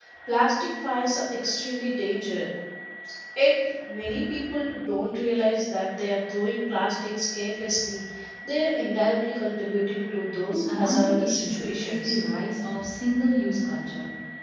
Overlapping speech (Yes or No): Yes